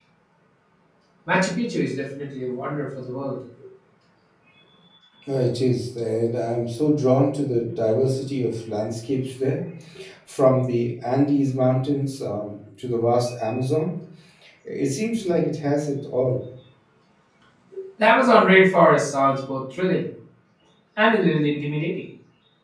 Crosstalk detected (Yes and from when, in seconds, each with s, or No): No